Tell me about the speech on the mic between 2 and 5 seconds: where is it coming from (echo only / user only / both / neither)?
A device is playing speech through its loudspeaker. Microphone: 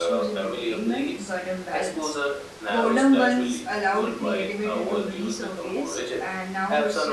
both